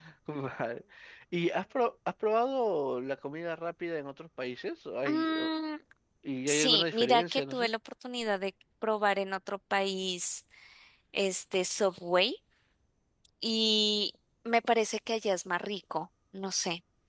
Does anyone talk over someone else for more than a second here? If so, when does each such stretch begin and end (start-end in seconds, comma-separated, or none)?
6.5-7.7